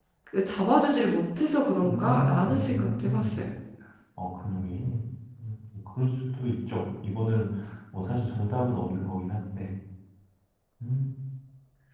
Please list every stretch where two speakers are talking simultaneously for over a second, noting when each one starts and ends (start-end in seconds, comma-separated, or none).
1.8-3.4